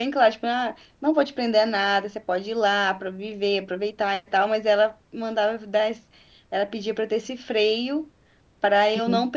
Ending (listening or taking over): listening